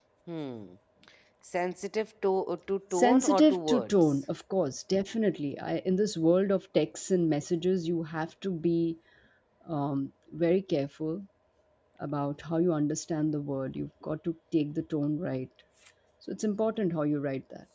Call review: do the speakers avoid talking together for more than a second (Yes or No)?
No